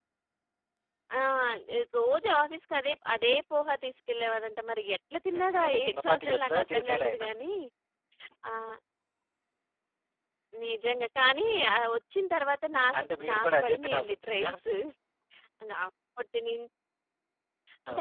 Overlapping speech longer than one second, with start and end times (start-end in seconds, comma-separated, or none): 5.4-7.2, 13.0-14.5